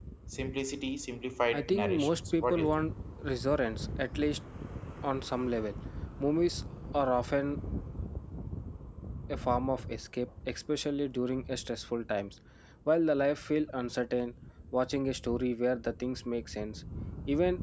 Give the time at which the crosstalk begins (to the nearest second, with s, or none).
2 s